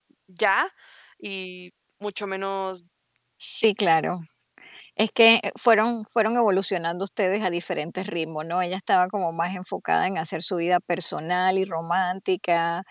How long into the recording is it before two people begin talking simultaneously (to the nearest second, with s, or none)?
none